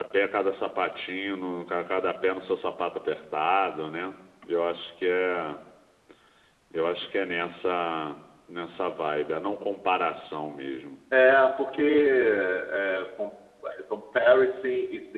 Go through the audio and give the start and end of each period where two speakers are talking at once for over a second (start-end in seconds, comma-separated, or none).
none